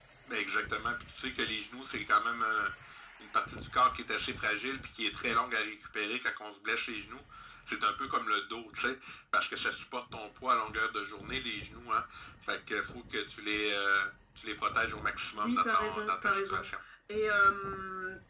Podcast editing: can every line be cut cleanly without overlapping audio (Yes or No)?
No